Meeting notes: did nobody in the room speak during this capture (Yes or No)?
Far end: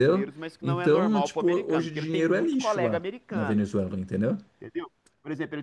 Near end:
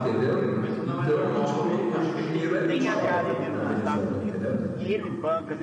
No